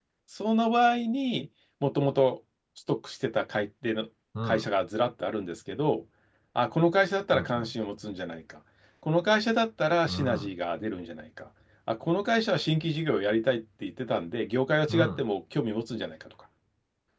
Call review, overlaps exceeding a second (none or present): none